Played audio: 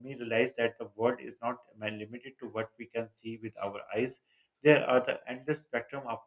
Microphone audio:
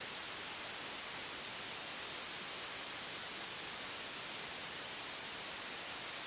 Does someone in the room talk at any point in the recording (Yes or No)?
No